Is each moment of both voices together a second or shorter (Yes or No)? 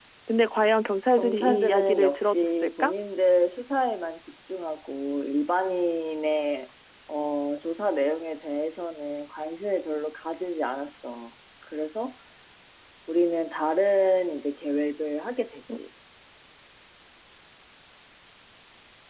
No